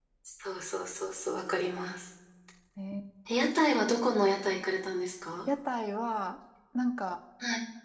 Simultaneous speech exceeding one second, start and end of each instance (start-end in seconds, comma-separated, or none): none